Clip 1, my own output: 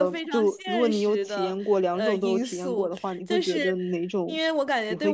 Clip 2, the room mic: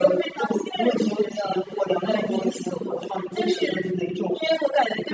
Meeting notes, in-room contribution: none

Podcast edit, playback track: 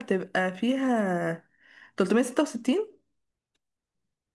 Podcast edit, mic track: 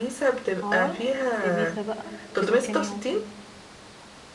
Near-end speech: present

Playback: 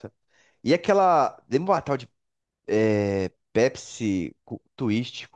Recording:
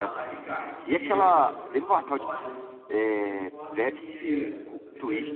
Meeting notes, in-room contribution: present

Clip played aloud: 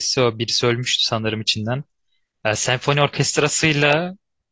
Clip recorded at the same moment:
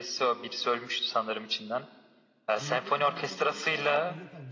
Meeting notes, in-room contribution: present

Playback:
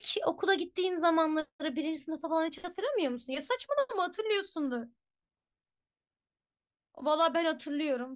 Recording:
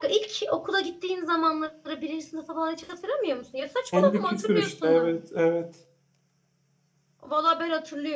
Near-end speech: present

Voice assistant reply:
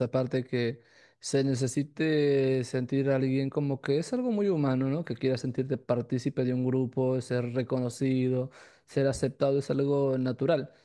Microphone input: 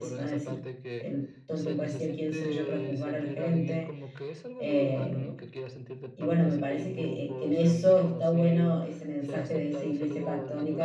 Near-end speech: present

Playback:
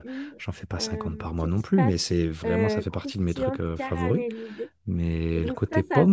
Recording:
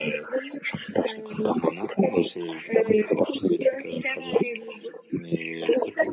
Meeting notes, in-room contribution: none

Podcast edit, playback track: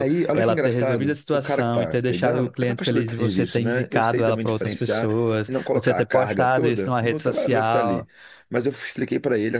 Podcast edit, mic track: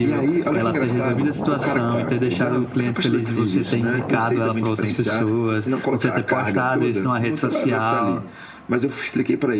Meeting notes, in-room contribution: none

